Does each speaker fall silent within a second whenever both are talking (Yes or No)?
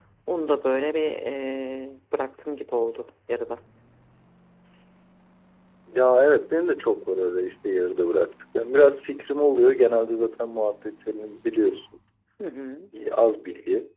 Yes